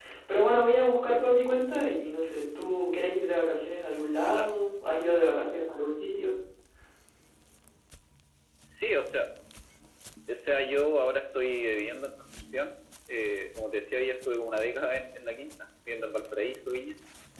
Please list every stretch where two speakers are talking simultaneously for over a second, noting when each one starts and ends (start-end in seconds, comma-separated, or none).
none